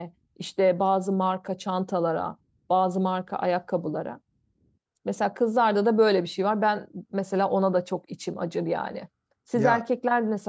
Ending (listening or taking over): listening